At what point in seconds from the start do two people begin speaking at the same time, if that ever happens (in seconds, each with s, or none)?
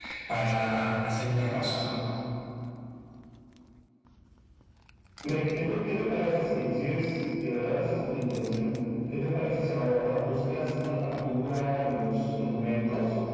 none